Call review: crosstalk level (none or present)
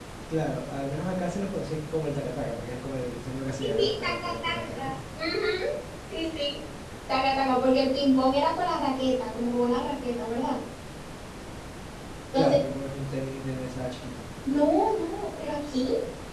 present